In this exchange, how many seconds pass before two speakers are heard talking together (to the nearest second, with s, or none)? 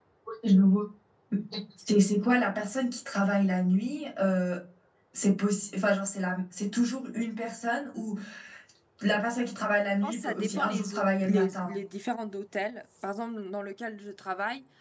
10 s